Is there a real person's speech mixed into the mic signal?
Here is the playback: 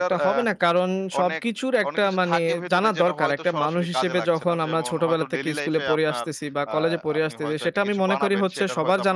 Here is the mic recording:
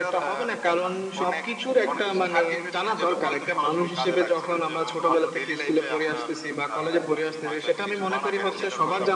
No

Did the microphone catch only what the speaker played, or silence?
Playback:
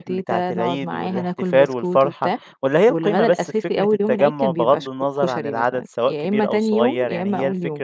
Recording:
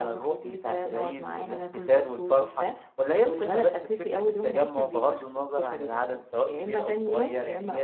Yes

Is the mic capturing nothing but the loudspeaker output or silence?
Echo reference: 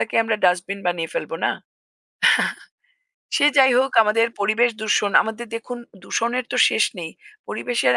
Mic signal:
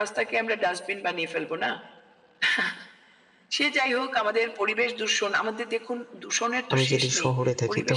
No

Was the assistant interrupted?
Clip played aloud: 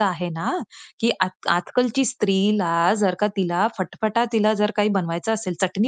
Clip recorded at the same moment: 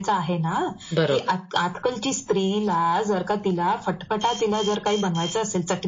Yes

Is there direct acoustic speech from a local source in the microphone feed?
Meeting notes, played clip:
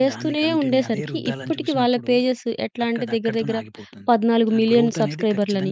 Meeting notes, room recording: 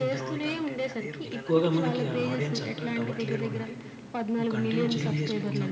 Yes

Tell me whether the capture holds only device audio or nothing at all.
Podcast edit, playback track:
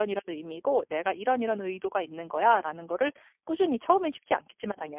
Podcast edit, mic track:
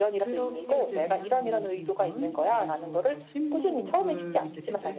No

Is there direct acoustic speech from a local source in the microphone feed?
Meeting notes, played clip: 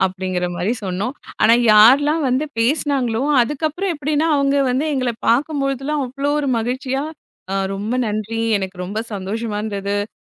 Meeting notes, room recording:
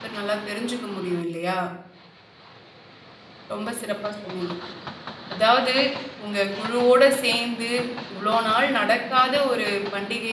Yes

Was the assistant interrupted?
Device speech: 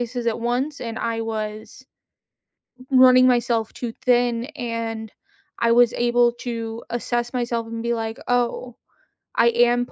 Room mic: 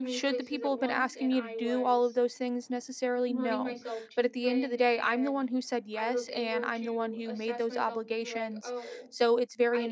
Yes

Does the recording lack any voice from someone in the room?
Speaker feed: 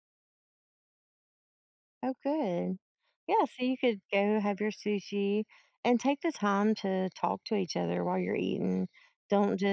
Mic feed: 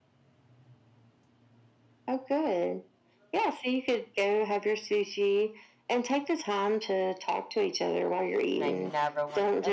No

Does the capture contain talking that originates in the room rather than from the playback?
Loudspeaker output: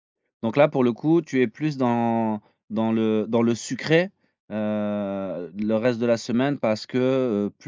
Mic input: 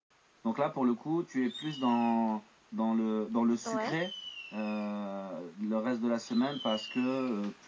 Yes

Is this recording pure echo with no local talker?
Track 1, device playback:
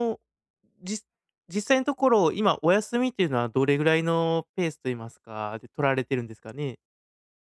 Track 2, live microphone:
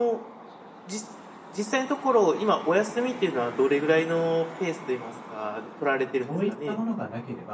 No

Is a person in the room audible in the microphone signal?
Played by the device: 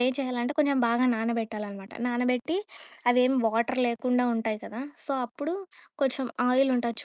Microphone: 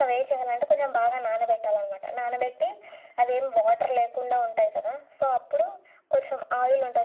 No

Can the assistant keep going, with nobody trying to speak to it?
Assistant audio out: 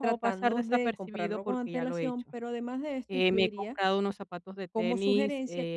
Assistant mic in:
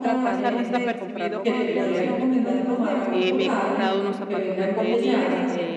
No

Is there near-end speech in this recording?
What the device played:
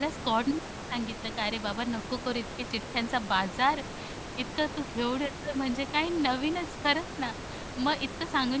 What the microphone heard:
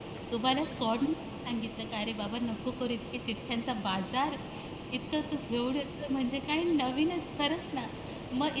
No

